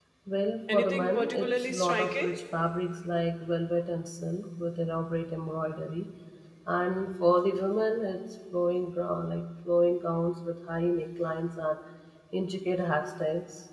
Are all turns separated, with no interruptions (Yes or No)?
No